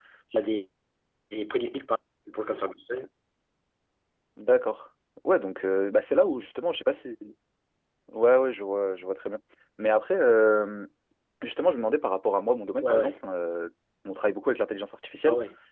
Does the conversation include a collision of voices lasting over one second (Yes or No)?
No